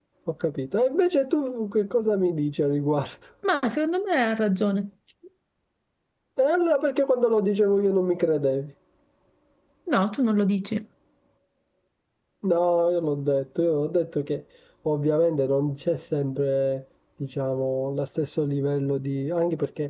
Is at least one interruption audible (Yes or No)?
No